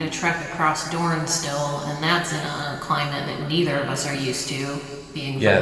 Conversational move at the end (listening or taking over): taking over